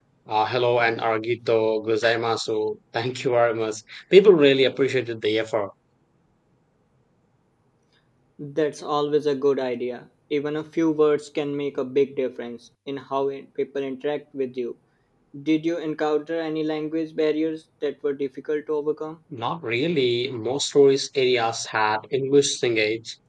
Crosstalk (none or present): none